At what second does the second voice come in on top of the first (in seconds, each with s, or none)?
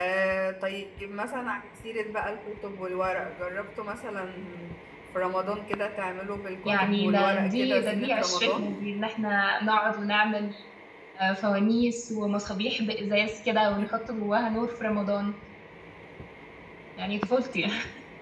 6.6 s